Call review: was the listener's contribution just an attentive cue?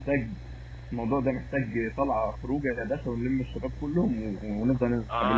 No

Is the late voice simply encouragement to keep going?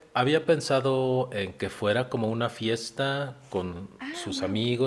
Yes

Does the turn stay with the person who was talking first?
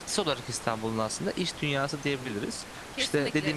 No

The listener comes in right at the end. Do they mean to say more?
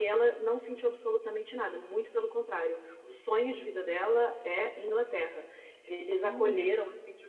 No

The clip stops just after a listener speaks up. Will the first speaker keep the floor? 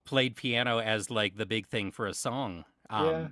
No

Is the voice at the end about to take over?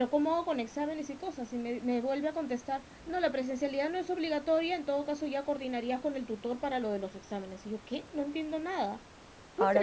Yes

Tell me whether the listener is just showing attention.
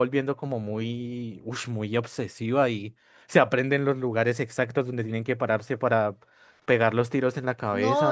No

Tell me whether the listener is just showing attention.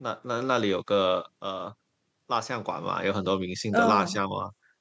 Yes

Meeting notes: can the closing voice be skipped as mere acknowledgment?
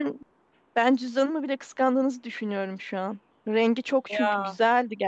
Yes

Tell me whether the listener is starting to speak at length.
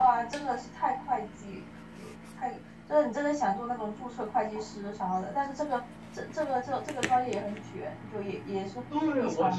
Yes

